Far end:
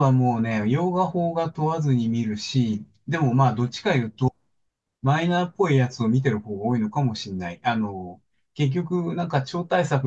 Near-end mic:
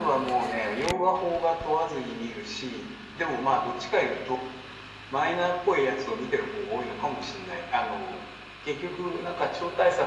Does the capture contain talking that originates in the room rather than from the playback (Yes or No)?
No